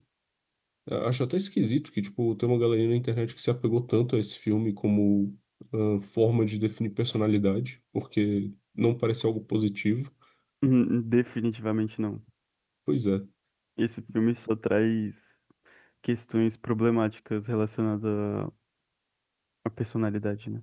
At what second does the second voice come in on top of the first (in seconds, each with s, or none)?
none